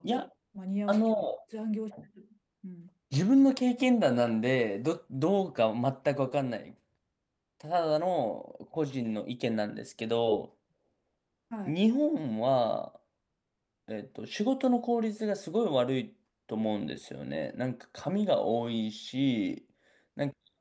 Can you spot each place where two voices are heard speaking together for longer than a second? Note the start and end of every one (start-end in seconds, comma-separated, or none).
none